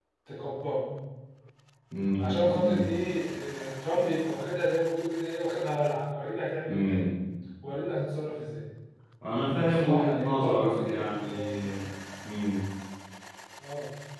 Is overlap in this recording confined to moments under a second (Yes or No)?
No